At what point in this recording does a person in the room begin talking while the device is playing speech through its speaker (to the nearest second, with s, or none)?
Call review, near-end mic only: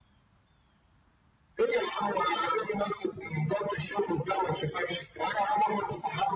none